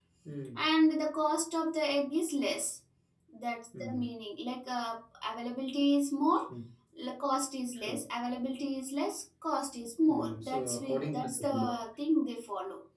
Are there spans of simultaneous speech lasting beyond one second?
Yes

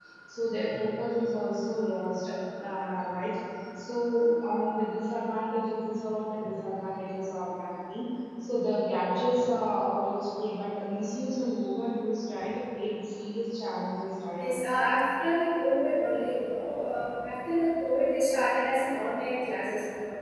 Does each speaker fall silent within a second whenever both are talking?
Yes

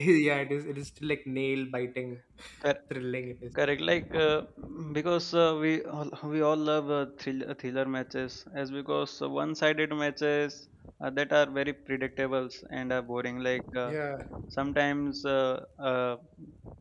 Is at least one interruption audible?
No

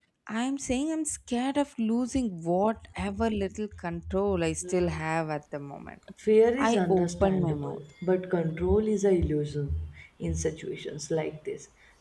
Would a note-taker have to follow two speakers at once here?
Yes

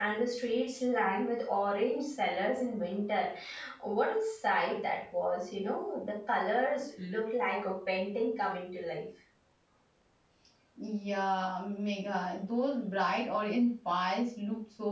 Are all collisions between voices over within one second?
Yes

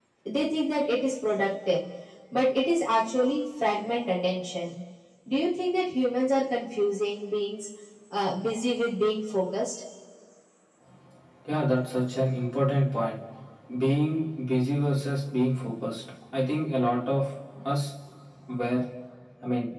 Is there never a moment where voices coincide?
Yes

